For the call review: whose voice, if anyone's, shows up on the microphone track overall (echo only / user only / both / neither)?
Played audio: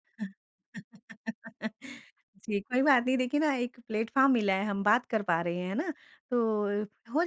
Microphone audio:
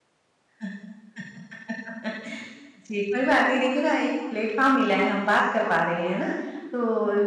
echo only